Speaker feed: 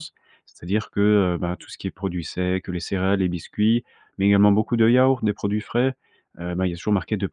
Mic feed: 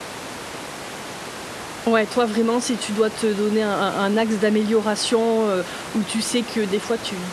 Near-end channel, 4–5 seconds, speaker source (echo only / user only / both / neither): user only